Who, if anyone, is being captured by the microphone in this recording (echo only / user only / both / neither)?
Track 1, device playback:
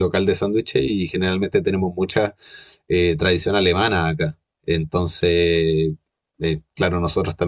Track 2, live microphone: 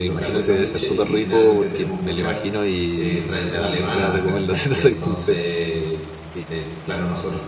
both